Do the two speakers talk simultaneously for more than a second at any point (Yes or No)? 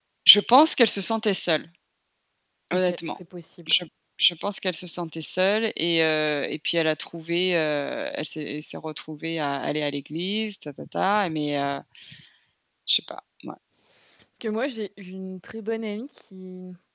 No